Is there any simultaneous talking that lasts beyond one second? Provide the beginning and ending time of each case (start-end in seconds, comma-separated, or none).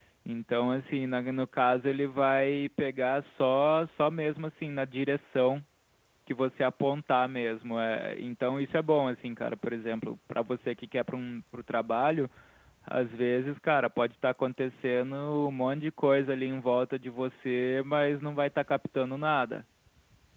none